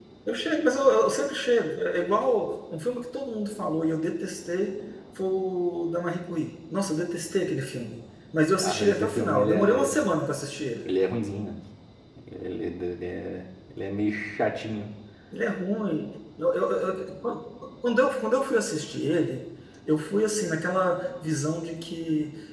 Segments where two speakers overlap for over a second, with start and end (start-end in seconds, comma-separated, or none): 8.6-10.1